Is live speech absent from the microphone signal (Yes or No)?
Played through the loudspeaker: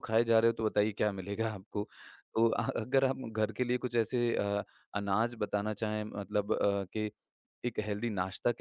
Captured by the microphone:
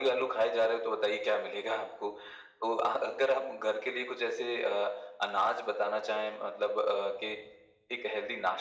Yes